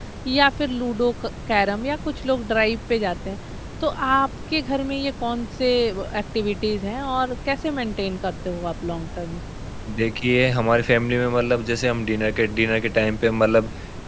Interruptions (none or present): none